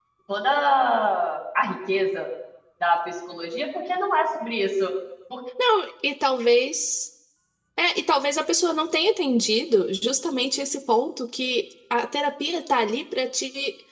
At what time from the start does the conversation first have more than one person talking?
none

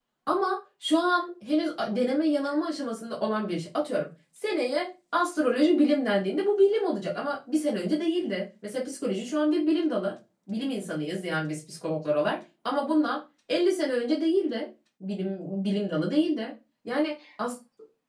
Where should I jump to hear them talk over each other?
none

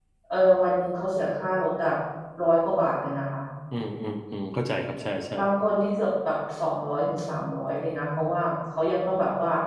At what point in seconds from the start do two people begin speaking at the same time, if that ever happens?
none

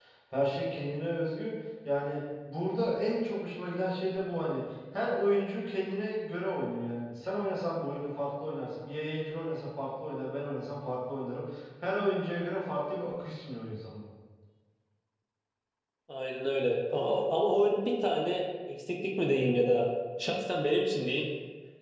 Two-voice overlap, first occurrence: none

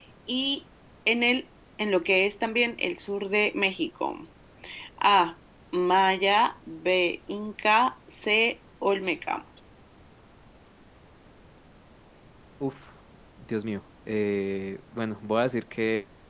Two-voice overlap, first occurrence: none

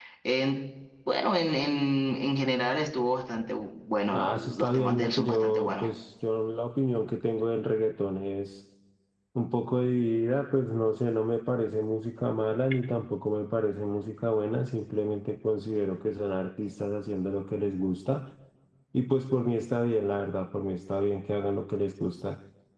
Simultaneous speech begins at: 4 s

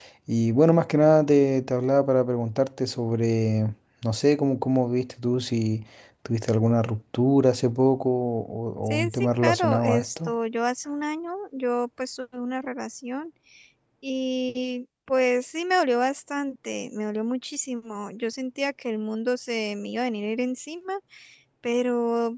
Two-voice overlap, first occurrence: 9 s

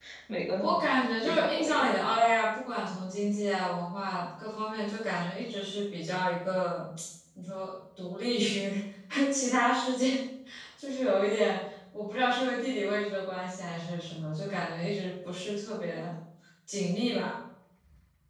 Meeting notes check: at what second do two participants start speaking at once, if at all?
1 s

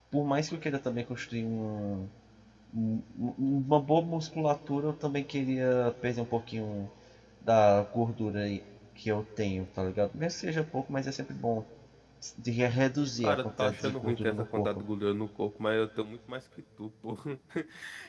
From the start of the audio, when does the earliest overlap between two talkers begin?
13 s

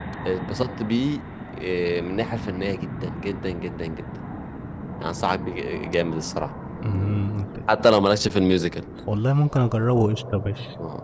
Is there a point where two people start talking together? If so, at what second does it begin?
none

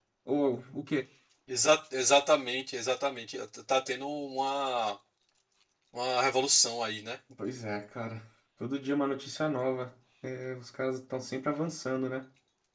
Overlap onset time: none

